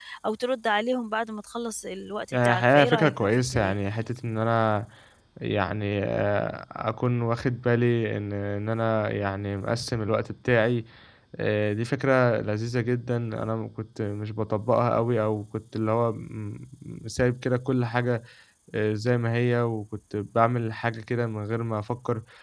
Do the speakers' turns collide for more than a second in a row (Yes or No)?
Yes